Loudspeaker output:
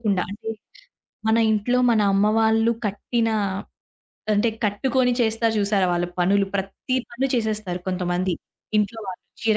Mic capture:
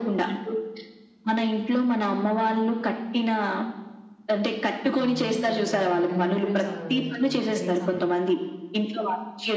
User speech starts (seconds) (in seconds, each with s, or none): 4.9 s